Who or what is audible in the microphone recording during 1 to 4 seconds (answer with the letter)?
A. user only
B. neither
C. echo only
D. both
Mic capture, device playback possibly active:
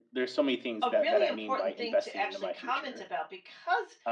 D